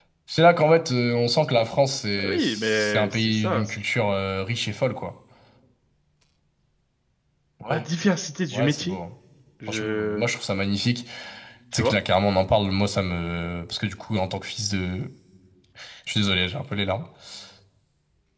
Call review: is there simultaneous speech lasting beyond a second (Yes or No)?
Yes